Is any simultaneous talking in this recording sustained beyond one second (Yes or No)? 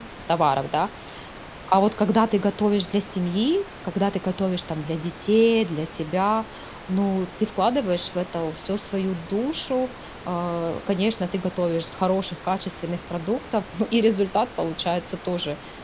No